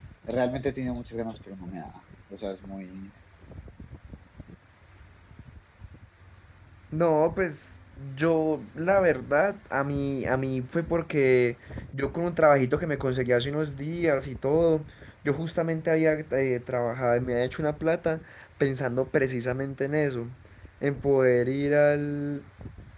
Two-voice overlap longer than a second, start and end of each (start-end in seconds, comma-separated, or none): none